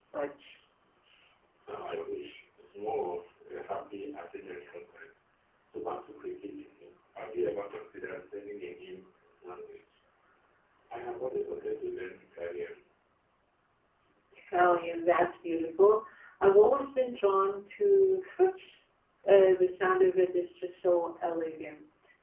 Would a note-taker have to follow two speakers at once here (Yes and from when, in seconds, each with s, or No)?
No